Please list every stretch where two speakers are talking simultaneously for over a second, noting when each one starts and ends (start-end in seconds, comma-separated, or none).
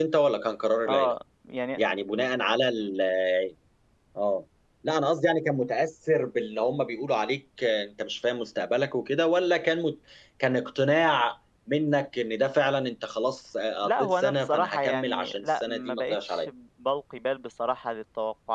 13.8-16.5